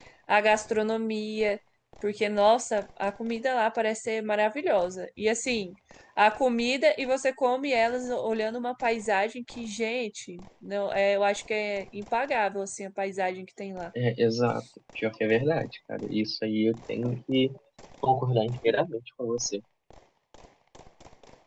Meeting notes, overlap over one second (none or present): none